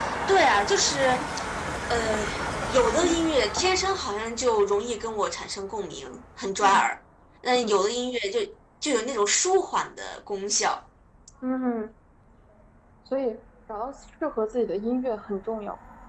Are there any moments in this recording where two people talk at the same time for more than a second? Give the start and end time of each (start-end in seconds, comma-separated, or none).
none